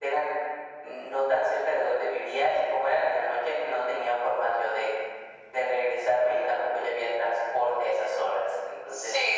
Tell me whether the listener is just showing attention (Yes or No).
No